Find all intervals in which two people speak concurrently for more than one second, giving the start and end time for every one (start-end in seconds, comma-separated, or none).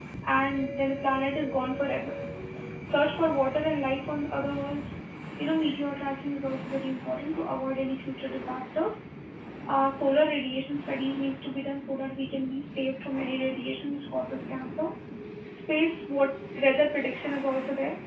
none